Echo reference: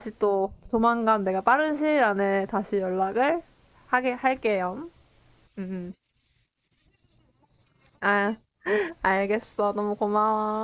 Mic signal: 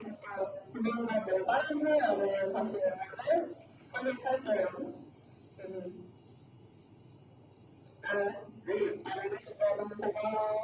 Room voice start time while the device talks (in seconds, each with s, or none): none